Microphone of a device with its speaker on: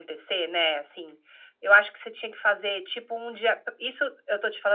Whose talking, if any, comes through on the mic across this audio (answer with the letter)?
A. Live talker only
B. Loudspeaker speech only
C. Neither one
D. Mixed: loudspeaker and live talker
B